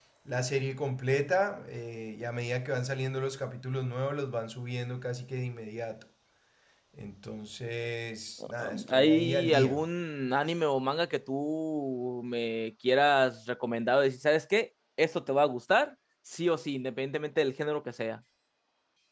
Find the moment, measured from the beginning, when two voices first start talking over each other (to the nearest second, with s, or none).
8 s